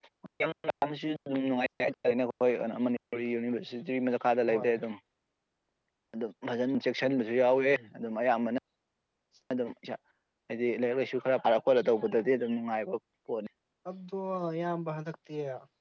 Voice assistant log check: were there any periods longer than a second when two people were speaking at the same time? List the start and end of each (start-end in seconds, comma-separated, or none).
none